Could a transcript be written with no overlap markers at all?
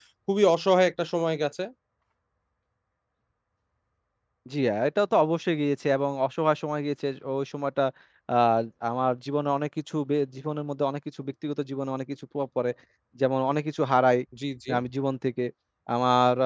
Yes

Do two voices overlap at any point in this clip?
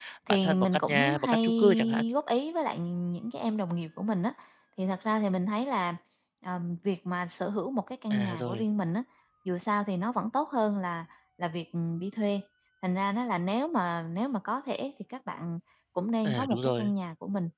Yes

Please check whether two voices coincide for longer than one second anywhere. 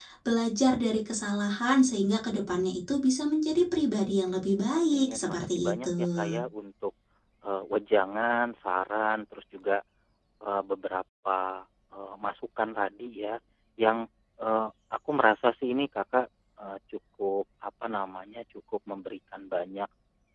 Yes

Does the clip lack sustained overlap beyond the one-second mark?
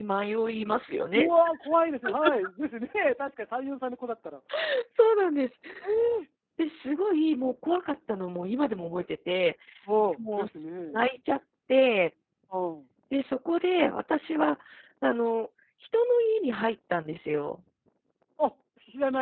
Yes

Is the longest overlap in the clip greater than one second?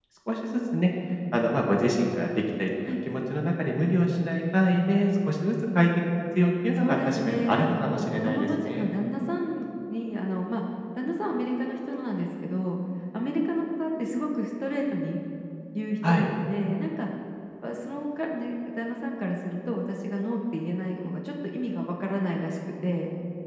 Yes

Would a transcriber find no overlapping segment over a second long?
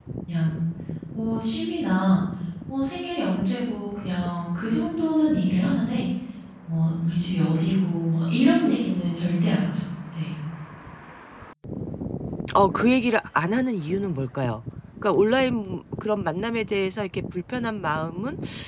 Yes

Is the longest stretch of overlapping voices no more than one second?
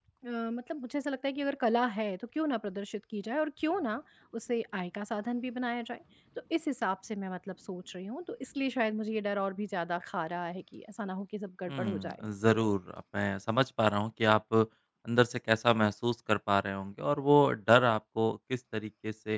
Yes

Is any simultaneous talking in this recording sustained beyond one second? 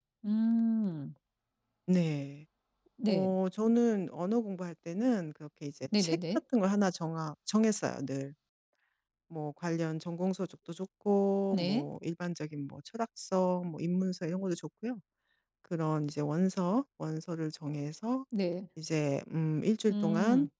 No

